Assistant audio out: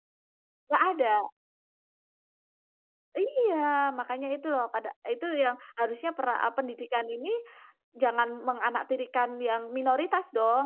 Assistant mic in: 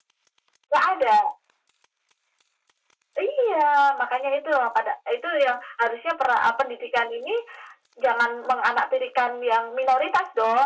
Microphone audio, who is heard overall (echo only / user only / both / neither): echo only